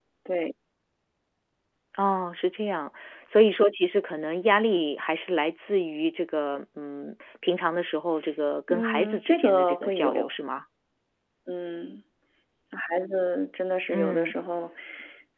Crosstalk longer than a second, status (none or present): present